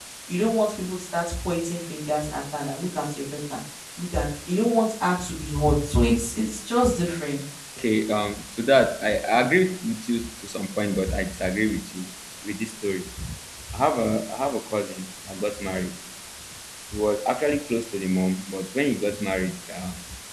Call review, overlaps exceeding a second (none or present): none